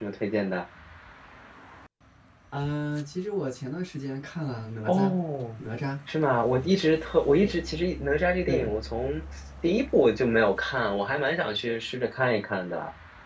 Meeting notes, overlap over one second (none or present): none